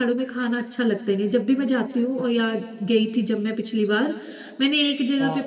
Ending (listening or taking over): listening